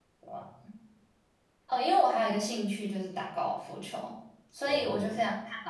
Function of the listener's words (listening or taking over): listening